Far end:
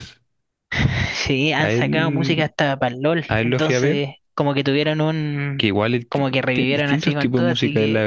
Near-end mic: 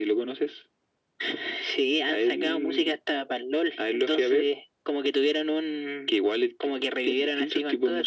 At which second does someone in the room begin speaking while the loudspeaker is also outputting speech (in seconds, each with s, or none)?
none